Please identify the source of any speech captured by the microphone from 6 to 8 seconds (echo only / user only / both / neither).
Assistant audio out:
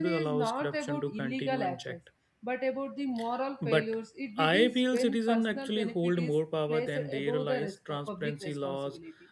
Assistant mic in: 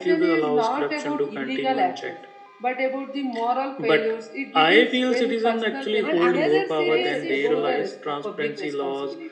both